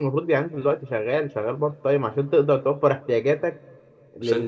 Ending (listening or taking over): listening